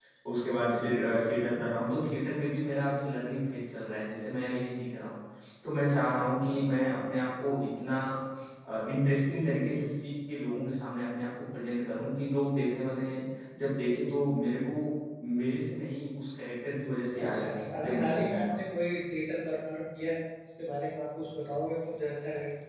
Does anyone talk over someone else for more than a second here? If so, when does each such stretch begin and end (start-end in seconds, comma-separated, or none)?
17.2-18.6